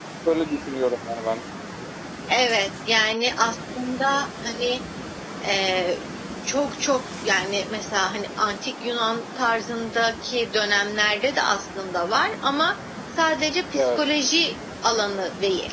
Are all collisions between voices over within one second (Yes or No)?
Yes